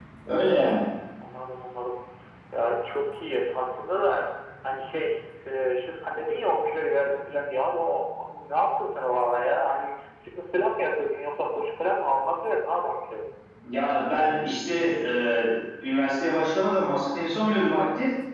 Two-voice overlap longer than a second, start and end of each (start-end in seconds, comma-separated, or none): none